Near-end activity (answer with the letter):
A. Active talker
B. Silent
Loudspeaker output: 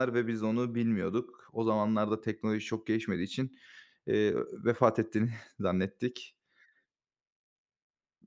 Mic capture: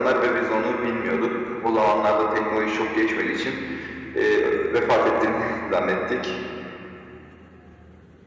B